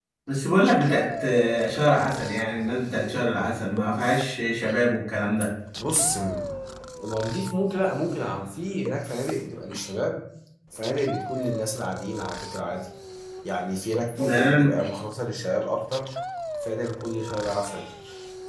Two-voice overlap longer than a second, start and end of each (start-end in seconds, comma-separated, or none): none